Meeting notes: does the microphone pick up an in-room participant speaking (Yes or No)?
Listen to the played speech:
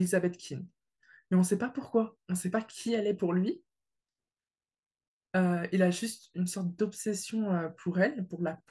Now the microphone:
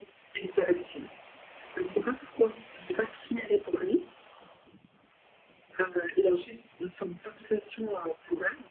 No